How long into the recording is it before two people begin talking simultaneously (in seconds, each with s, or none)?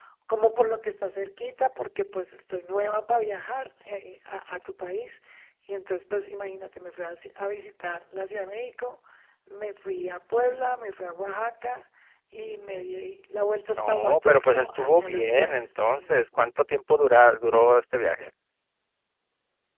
13.8 s